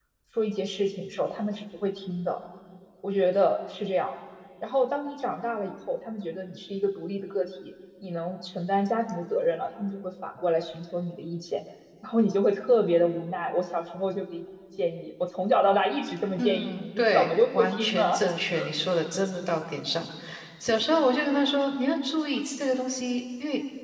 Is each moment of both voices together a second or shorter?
No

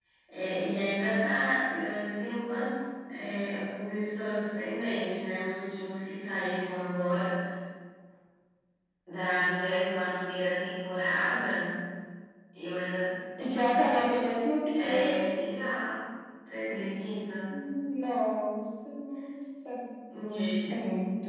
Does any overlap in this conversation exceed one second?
No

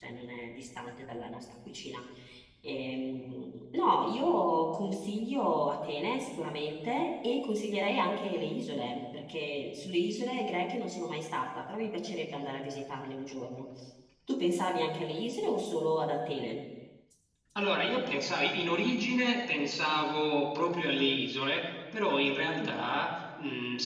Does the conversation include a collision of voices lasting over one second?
No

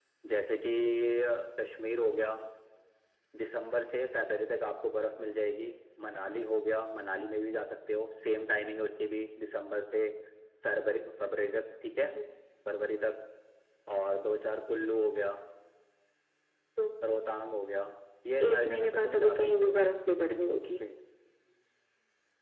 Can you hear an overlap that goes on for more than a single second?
Yes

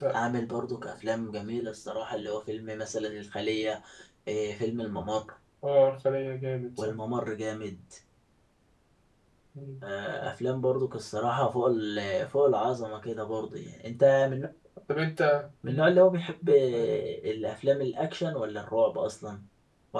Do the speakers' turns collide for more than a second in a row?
No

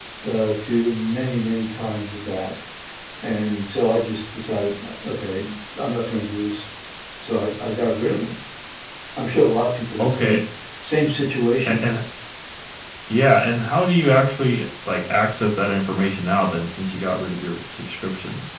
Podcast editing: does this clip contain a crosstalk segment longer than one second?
No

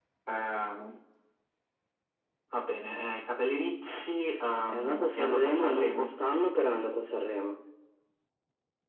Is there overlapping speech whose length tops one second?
Yes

